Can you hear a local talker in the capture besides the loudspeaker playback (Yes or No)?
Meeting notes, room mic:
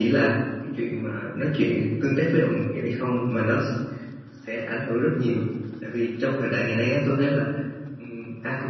Yes